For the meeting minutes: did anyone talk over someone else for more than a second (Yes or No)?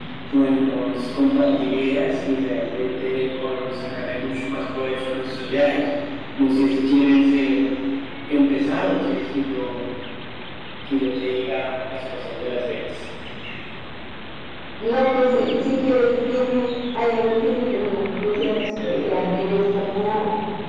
No